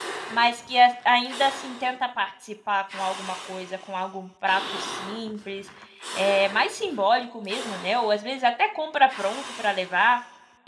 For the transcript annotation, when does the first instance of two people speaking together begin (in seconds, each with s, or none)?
none